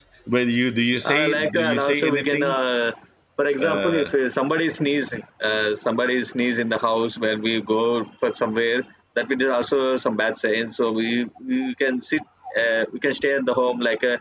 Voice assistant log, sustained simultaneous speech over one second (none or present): present